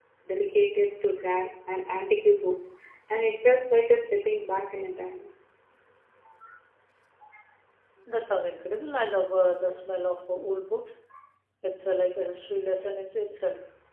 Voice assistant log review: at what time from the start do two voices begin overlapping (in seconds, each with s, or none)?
none